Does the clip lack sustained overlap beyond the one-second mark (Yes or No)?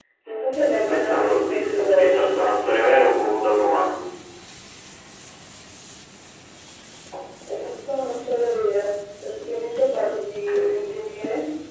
No